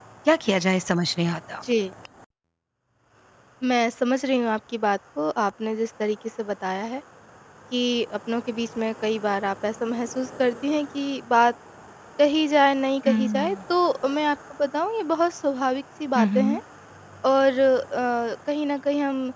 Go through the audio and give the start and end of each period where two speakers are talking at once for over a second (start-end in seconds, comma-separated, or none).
none